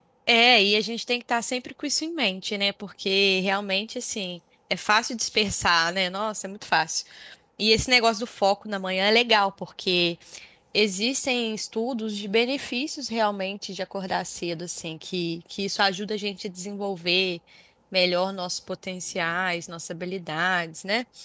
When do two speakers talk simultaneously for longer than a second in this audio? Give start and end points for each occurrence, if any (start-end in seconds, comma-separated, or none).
none